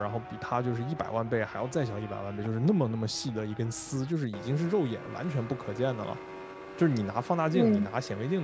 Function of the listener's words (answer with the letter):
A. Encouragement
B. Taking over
A